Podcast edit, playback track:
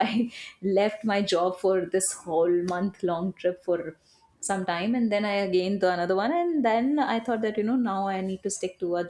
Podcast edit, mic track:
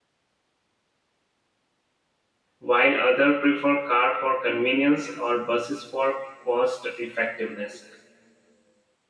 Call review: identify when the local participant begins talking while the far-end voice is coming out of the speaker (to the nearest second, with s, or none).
3 s